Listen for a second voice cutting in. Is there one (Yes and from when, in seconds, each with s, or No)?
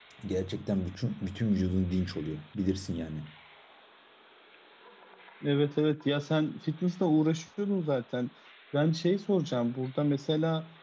No